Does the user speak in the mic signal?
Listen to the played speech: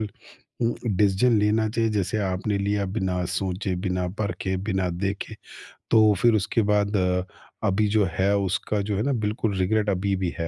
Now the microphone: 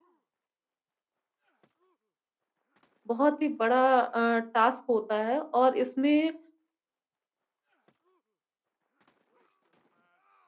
Yes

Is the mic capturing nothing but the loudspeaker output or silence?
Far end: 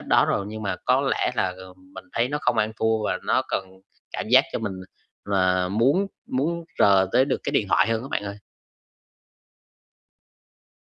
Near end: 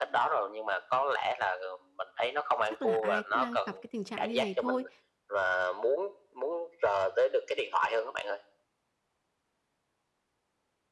No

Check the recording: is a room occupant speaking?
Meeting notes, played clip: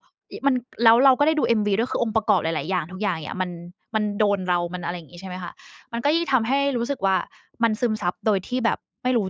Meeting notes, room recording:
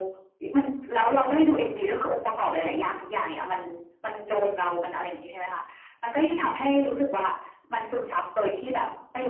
No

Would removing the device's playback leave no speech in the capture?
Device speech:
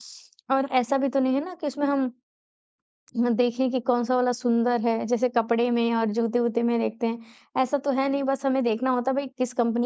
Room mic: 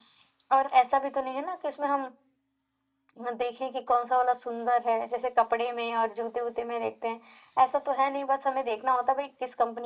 Yes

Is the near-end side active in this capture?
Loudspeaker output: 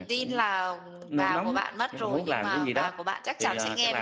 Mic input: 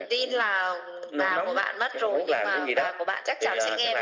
No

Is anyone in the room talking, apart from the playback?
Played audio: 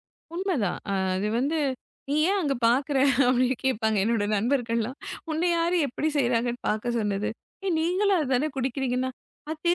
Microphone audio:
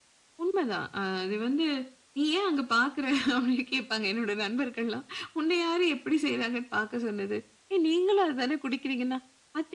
No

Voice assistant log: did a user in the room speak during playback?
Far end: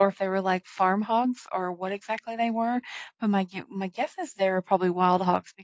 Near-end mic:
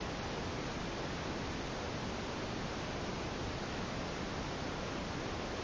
No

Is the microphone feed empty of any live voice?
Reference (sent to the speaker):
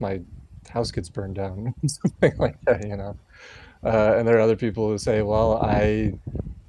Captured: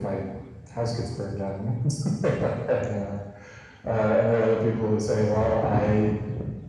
Yes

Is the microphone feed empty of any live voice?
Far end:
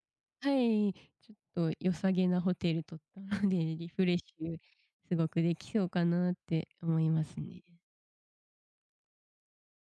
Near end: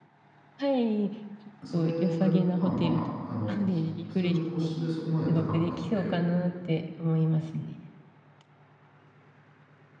No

